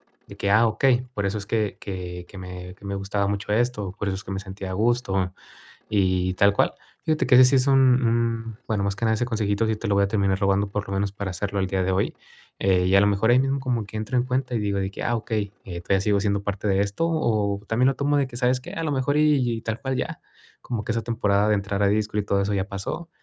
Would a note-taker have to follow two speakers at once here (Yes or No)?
No